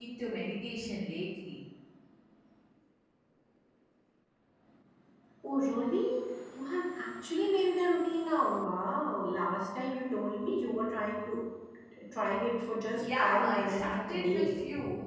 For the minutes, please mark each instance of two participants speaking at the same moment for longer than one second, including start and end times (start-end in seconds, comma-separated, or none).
13.0-14.6